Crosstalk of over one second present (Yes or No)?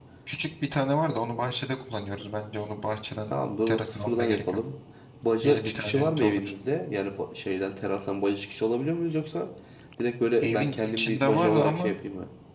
Yes